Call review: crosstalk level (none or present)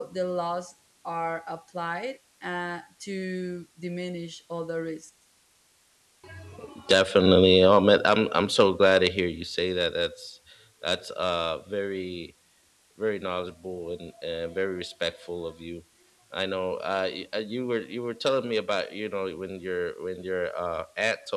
none